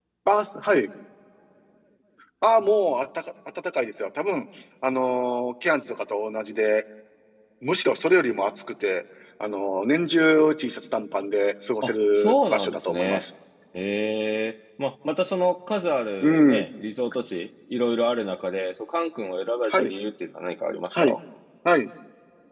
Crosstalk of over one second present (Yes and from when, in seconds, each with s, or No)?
Yes, from 11.8 s